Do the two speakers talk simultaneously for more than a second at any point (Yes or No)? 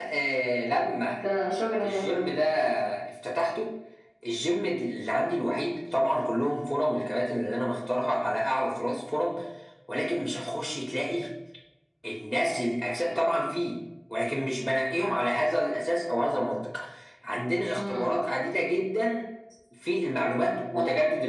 No